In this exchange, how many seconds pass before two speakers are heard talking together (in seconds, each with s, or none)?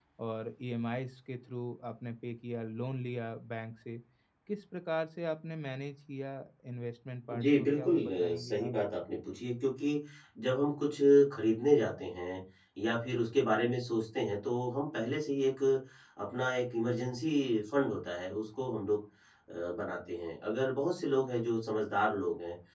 7.4 s